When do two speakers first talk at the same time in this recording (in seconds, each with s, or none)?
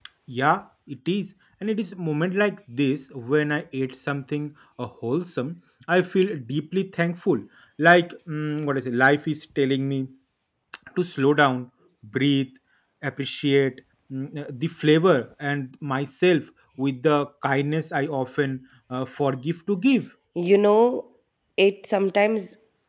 none